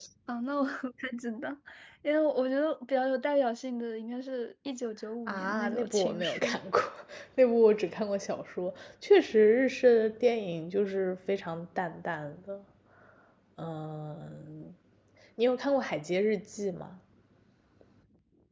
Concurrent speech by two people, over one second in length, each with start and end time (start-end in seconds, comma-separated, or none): 5.3-6.5